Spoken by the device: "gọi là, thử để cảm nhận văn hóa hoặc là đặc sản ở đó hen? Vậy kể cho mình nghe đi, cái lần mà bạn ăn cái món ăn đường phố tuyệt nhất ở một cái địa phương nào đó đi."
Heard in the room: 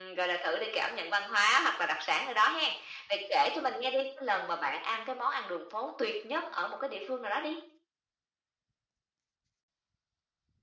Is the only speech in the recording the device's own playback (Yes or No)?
Yes